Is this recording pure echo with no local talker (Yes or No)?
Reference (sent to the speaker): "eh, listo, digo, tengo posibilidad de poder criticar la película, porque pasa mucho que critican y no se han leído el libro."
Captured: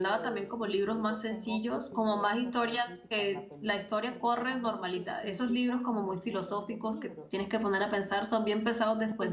No